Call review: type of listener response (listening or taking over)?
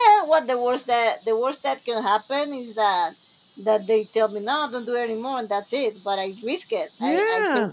taking over